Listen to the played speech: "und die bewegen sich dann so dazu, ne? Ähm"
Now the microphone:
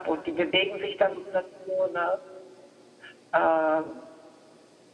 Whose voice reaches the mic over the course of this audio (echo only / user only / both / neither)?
echo only